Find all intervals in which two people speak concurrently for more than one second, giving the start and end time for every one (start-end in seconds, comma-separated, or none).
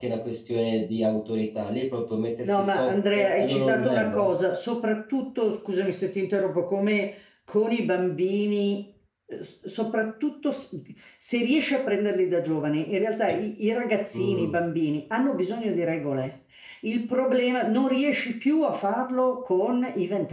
2.4-4.3